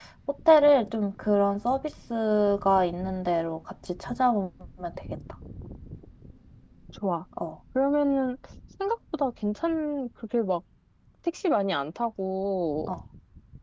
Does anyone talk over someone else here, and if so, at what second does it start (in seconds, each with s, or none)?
none